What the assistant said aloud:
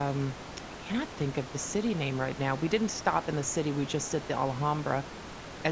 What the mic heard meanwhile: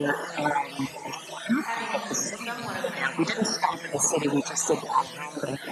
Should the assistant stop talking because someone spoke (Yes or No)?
Yes